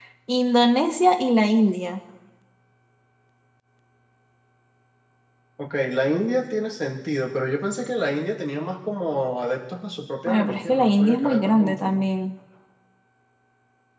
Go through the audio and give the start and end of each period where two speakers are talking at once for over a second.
10.3-12.1

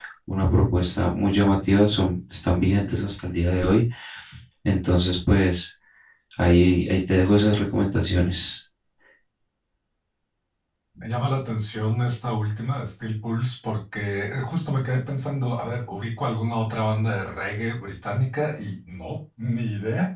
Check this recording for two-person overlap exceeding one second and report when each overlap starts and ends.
none

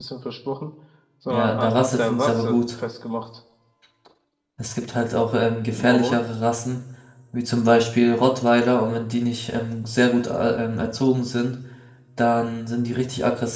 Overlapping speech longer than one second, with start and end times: 1.3-2.6

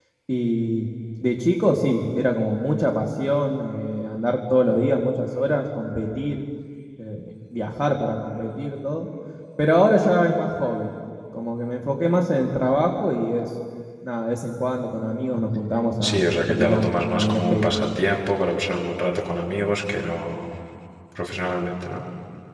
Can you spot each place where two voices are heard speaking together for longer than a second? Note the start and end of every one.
16.1-17.8

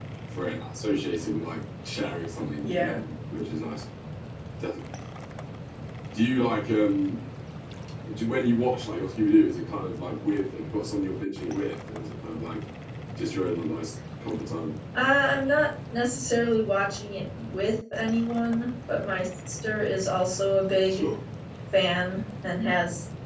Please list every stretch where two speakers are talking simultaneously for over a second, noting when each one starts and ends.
none

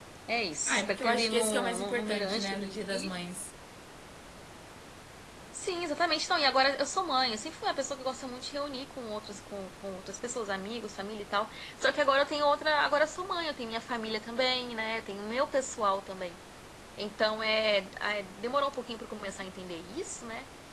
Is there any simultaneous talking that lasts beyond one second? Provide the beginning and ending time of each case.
0.7-3.1

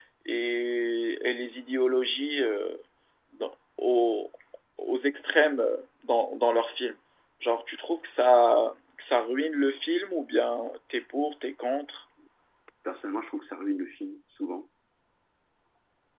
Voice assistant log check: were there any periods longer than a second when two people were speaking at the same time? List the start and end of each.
none

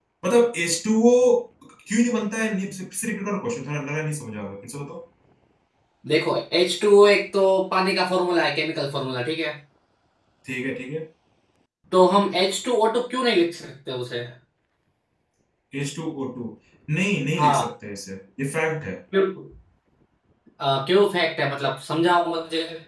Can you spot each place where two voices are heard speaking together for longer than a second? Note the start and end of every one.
none

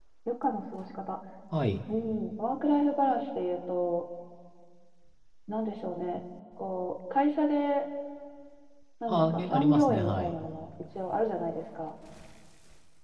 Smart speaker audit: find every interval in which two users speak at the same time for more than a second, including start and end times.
9.1-10.4

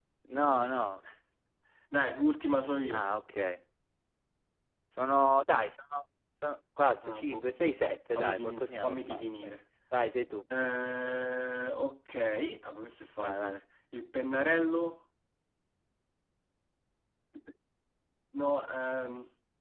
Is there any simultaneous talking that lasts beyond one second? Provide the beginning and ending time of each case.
8.2-9.5

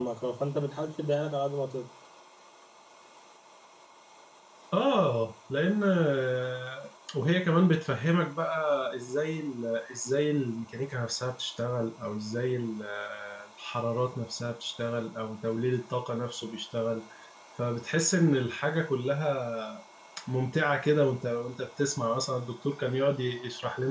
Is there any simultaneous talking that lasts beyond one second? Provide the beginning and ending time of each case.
none

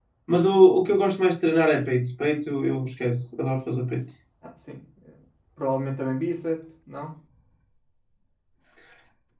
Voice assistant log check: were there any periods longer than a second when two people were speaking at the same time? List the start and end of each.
none

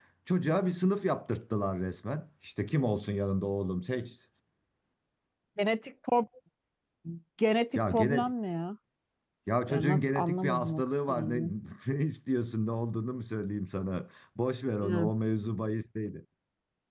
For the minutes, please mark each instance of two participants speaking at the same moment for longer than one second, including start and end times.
9.7-11.4

